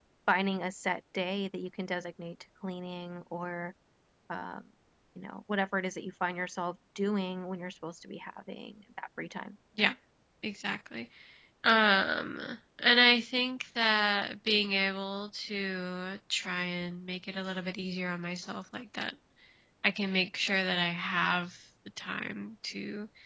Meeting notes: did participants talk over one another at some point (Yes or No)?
No